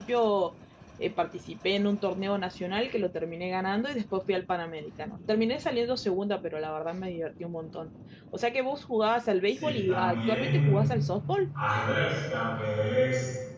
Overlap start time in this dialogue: 9.5 s

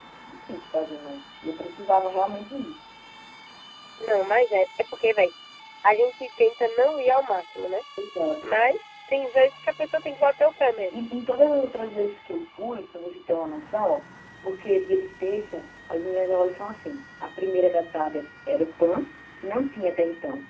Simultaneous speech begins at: none

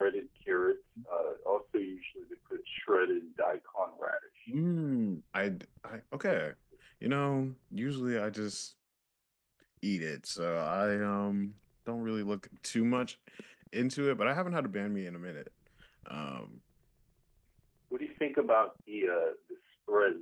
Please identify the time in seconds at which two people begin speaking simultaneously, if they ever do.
none

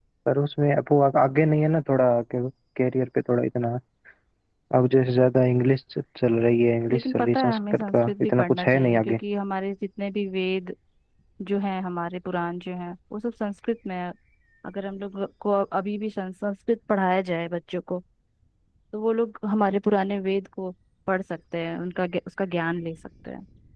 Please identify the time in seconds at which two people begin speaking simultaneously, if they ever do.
6.9 s

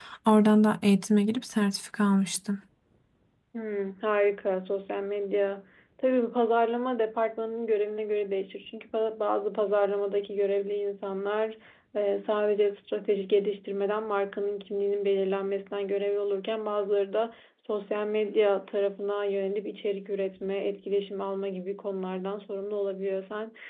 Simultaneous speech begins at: none

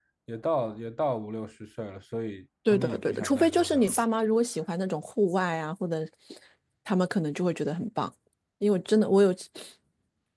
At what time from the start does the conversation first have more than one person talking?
2.7 s

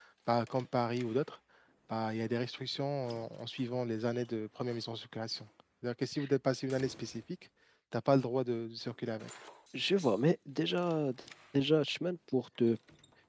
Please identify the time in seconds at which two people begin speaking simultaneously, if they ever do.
none

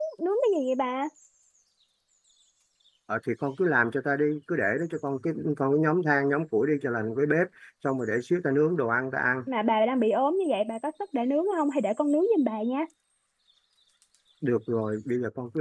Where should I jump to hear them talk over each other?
none

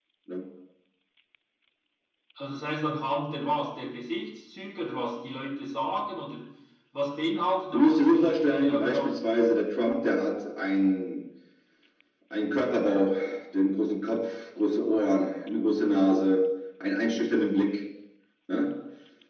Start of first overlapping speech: 7.7 s

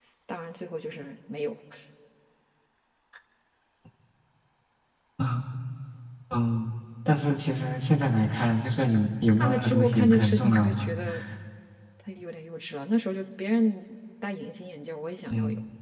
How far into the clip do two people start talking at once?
9.4 s

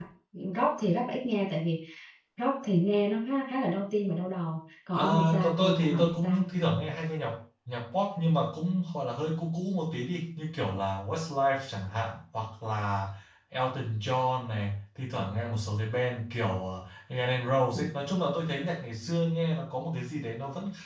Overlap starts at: 4.9 s

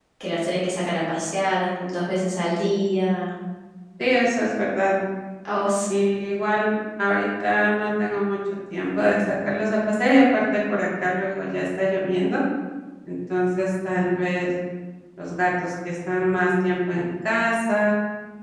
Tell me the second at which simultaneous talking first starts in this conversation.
none

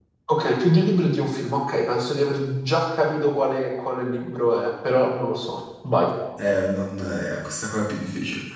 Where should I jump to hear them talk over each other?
none

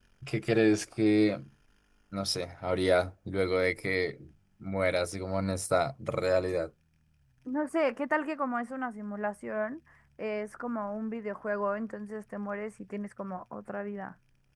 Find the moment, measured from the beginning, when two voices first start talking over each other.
none

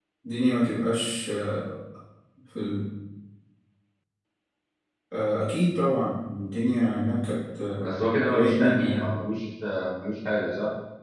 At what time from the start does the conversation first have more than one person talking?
7.8 s

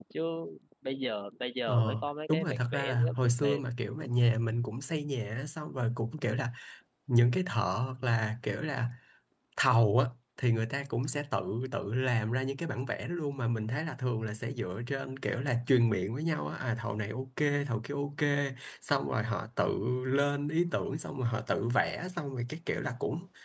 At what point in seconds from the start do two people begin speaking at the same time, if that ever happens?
1.7 s

